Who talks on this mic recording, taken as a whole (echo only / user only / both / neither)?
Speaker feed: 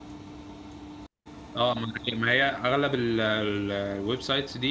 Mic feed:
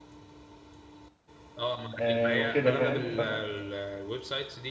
both